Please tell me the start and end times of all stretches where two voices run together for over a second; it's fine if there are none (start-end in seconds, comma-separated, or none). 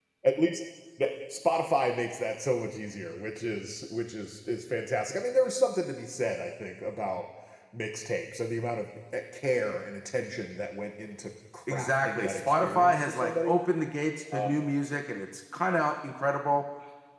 11.7-13.6